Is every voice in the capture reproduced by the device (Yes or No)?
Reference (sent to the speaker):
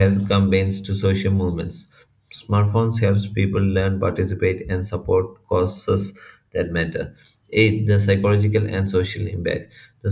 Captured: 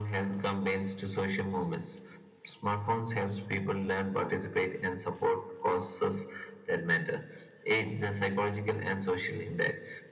Yes